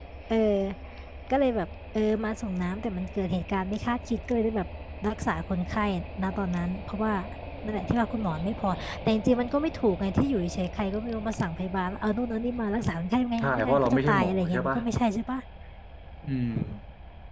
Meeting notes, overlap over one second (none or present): present